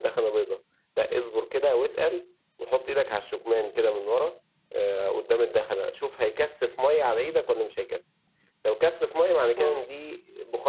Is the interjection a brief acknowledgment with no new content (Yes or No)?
Yes